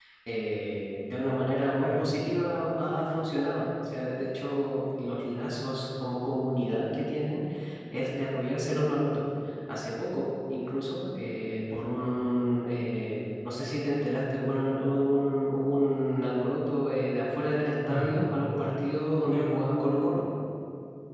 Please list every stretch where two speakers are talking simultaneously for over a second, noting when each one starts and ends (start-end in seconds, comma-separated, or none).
none